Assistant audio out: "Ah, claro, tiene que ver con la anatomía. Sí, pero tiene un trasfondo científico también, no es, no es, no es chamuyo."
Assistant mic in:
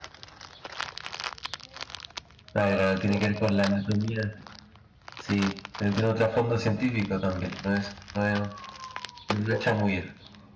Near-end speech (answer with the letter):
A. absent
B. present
A